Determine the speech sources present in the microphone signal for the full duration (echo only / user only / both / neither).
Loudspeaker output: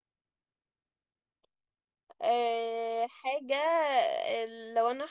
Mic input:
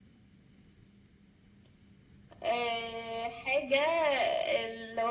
echo only